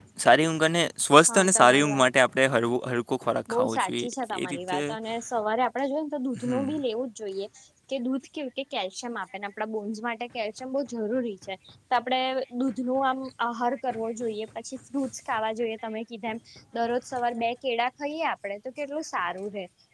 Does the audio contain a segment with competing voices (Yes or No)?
Yes